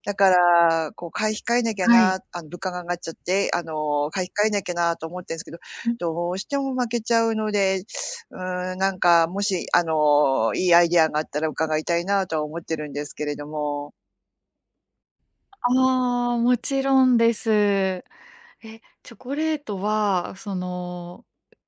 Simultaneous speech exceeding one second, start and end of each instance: none

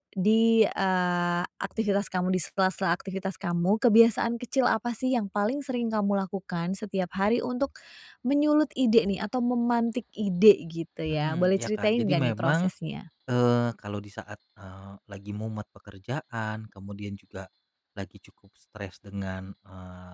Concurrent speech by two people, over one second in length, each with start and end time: 11.1-12.7

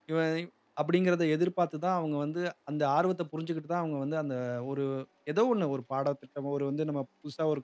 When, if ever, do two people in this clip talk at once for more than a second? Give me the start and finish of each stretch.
none

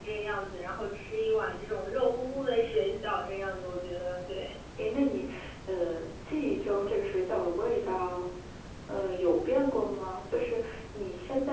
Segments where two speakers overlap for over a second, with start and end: none

